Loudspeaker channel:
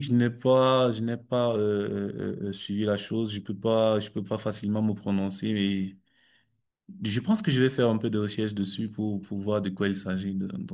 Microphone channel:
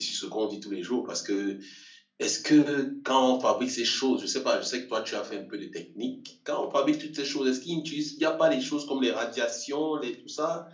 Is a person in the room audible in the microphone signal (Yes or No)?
Yes